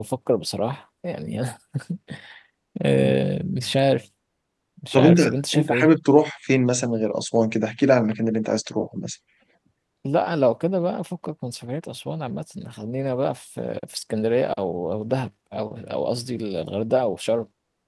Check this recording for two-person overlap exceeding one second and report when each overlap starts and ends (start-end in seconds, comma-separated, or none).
none